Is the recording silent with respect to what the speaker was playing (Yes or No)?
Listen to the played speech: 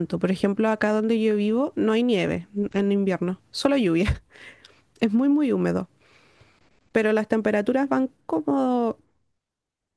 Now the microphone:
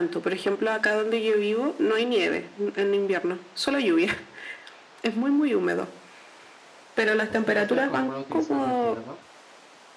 No